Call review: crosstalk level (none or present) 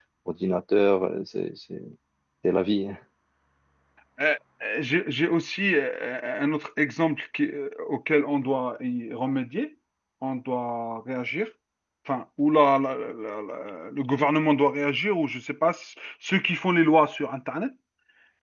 none